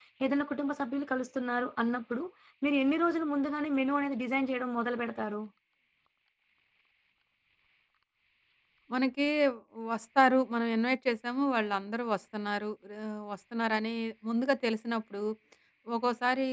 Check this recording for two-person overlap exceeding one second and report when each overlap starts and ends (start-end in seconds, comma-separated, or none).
none